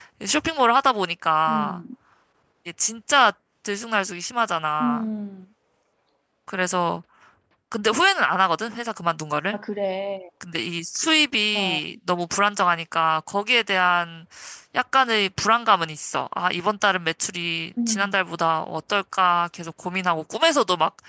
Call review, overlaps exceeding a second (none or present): none